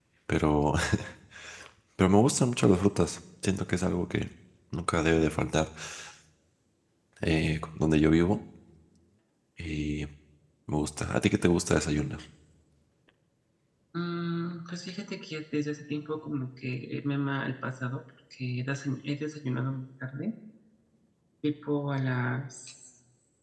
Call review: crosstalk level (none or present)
none